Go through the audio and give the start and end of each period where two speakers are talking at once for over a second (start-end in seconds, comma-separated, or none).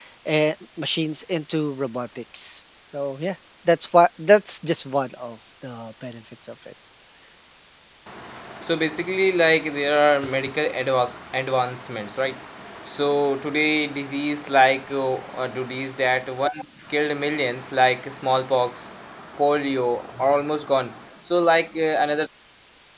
none